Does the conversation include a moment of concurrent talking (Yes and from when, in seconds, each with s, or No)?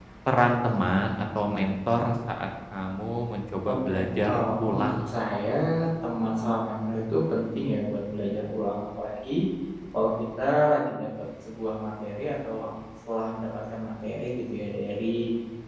Yes, from 3.6 s